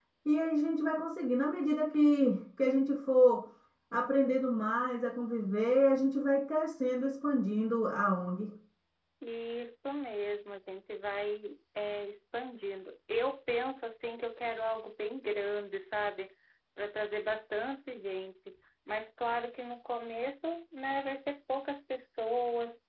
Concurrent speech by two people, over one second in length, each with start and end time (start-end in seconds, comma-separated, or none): none